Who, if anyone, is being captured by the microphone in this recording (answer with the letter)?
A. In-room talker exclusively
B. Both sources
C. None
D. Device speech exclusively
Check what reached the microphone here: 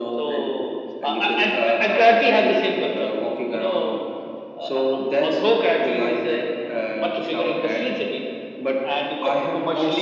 D